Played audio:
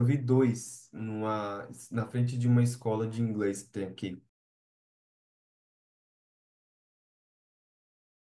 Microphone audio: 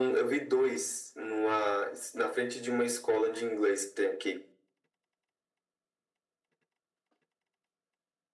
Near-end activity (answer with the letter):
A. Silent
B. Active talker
A